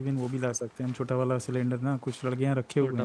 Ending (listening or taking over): listening